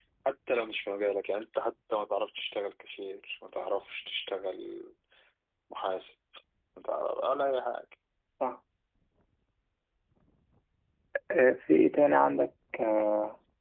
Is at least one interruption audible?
No

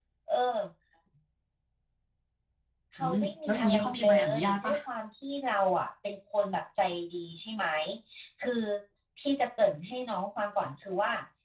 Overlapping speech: Yes, from 3.0 s

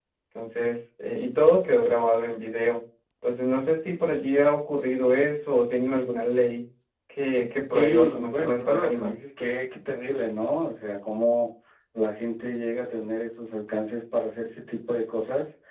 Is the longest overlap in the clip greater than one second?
Yes, from 7.7 s

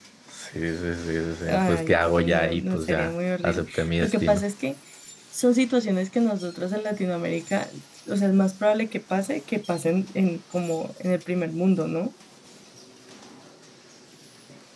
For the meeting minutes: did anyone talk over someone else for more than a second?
Yes, from 1.4 s

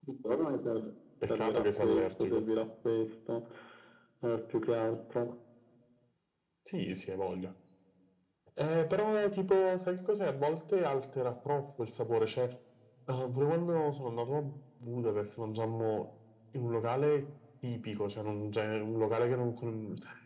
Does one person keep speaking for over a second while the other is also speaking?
Yes, from 1.2 s

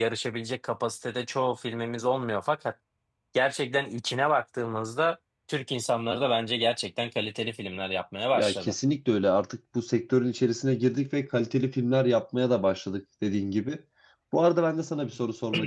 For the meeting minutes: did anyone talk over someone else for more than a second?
No

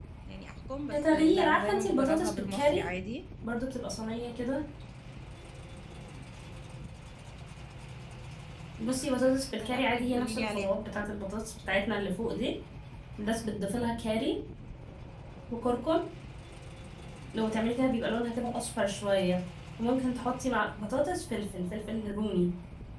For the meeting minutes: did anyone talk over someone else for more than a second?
Yes, from 0.9 s

